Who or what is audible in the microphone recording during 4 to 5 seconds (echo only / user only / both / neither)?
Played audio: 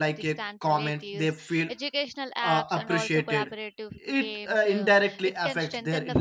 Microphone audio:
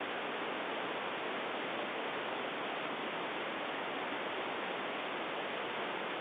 neither